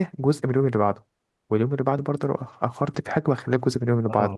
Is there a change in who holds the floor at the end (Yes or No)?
Yes